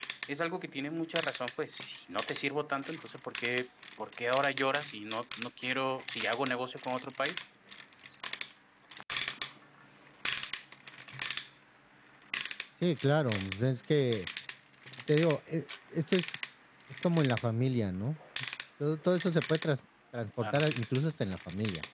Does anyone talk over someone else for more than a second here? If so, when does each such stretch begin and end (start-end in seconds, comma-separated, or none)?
none